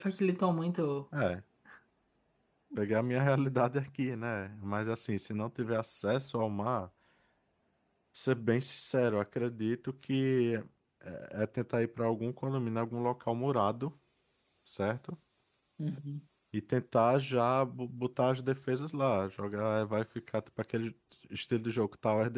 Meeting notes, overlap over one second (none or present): none